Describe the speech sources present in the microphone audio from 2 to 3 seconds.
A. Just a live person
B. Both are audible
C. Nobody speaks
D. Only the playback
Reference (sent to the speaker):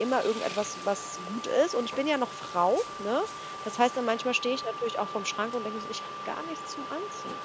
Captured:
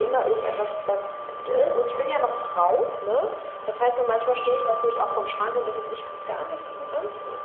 D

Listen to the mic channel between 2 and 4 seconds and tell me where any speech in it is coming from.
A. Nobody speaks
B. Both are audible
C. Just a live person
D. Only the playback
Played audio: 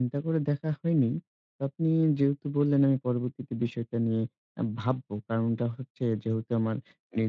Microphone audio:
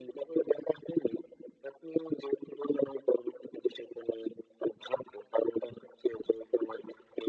D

